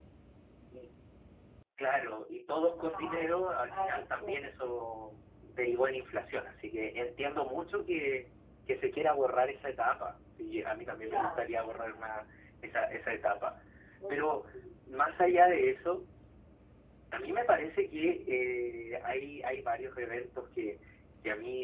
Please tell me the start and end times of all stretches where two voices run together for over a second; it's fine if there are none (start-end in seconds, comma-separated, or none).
2.8-4.5